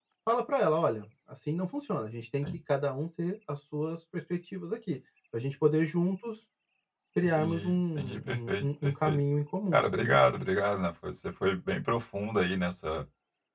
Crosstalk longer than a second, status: present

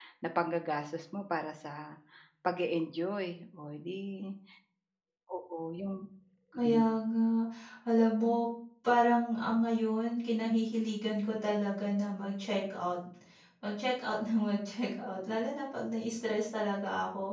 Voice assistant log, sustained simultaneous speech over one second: none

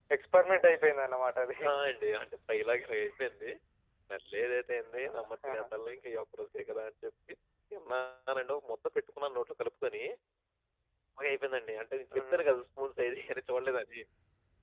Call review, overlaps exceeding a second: none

